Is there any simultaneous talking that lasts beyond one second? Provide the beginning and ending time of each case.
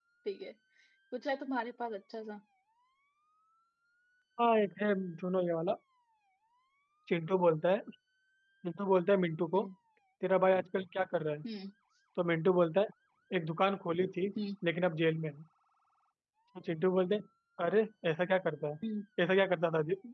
none

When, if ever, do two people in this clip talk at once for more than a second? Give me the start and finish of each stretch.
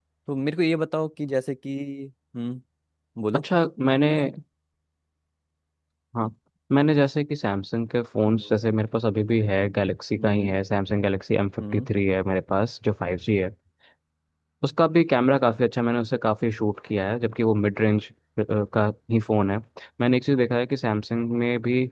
none

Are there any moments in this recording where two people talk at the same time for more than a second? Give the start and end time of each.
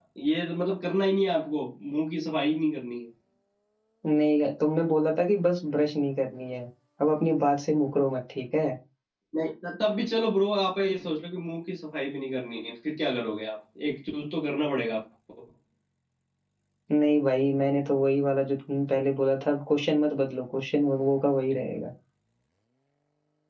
none

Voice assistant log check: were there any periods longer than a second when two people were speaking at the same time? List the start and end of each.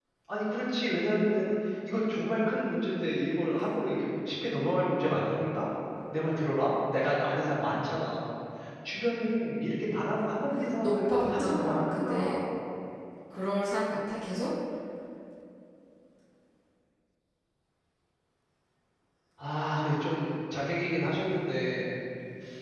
10.8-12.1

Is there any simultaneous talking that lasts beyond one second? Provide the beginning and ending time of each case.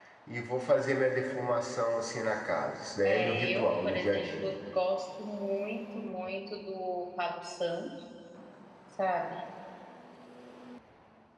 3.0-4.5

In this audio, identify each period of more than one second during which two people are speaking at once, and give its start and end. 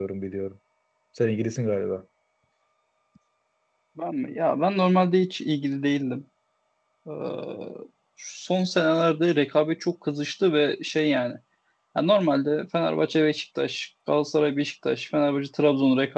none

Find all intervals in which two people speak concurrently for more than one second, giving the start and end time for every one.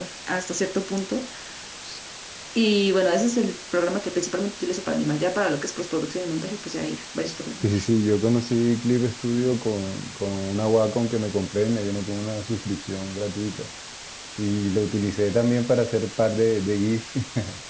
none

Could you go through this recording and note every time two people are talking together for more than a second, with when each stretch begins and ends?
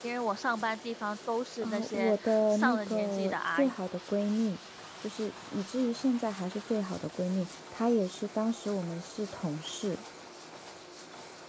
1.6-3.7

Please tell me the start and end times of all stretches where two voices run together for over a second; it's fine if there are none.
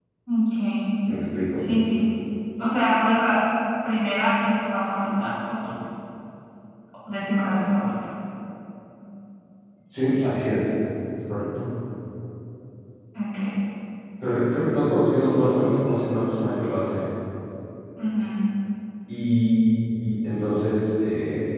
none

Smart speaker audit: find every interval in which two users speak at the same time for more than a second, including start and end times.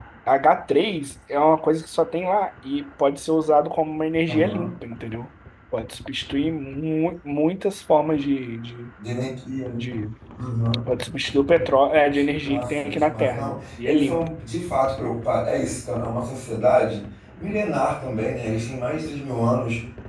12.5-14.2

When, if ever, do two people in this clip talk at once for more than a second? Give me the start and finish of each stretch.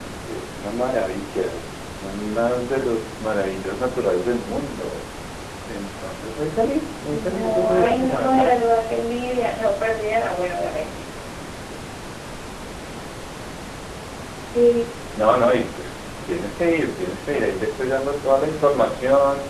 7.1-8.5

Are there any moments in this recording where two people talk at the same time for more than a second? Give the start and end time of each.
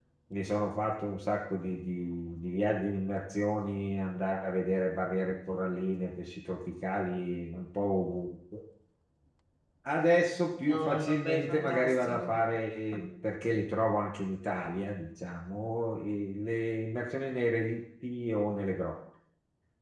10.6-12.4

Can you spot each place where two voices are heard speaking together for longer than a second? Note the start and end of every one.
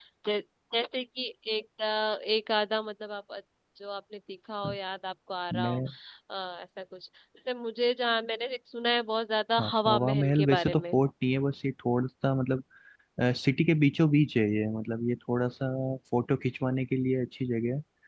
9.6-10.9

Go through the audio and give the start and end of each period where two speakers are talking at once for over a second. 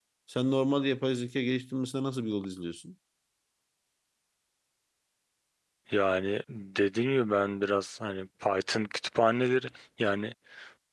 none

